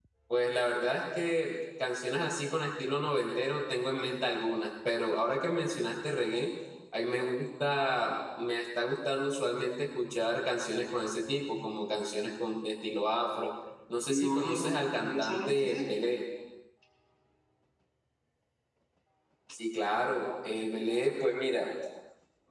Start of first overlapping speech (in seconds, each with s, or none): 14.1 s